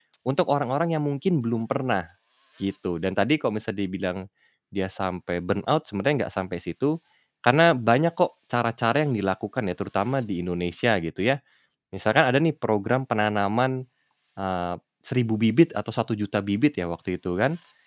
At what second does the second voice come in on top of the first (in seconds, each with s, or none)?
none